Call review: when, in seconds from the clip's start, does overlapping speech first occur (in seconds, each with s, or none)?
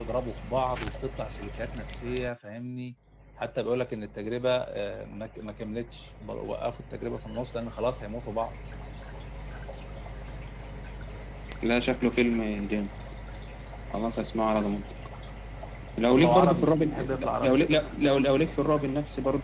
16.1 s